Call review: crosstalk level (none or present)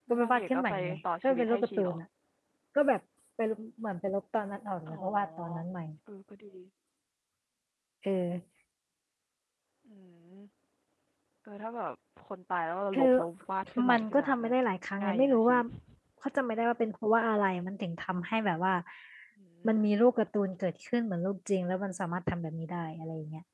present